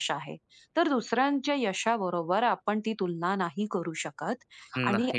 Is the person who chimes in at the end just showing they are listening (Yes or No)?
Yes